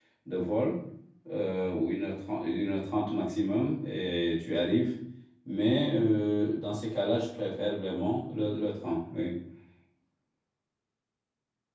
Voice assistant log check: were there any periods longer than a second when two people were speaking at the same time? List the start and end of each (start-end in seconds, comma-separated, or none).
none